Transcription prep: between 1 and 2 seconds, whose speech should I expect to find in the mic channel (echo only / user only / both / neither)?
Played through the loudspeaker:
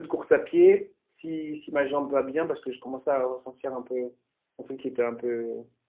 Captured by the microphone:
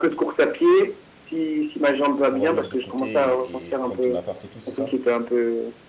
echo only